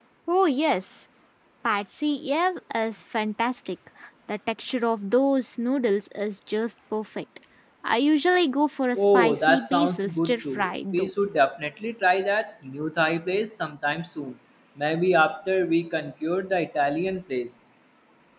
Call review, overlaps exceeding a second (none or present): present